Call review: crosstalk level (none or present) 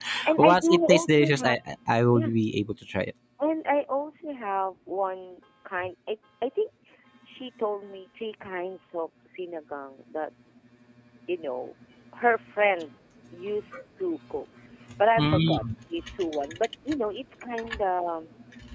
present